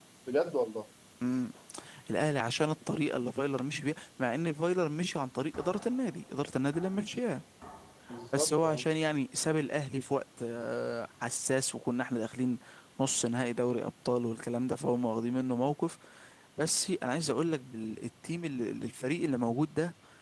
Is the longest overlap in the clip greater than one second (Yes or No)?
No